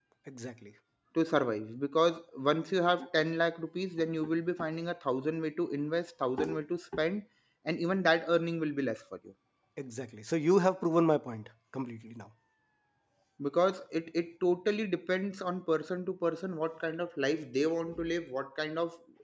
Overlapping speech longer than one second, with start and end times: none

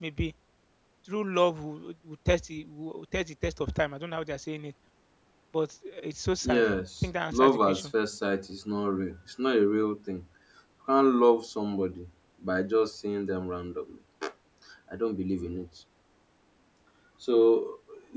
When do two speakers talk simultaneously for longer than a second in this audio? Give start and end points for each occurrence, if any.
6.4-7.9

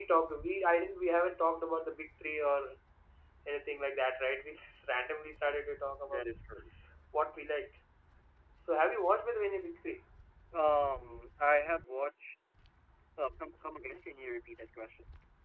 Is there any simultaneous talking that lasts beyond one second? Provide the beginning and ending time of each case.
none

